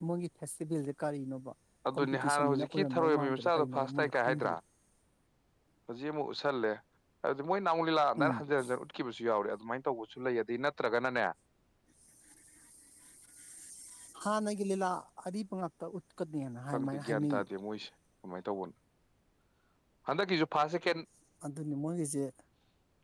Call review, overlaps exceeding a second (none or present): present